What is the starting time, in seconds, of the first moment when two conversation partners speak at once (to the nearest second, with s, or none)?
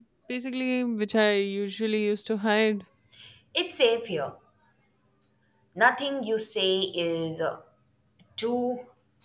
none